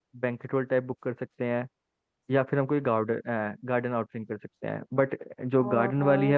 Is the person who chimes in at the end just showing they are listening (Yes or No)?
Yes